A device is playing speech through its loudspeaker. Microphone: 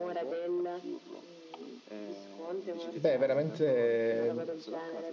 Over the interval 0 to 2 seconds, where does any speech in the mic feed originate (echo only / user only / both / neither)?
echo only